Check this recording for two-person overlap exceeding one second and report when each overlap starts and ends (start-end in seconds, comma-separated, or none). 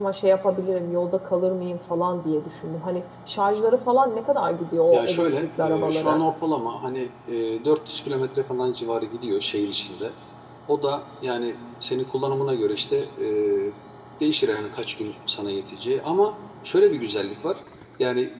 4.9-6.2